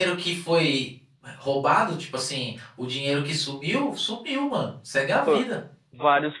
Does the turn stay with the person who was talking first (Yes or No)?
No